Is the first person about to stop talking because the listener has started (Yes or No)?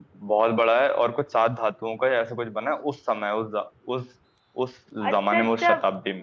Yes